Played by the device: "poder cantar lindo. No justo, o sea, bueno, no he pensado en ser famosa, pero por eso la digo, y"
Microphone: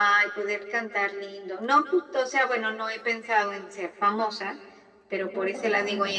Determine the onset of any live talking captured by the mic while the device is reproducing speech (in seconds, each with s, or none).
5.2 s